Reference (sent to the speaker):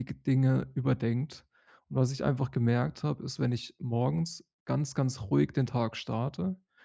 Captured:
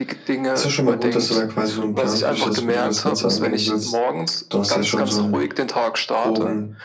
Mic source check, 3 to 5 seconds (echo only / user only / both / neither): both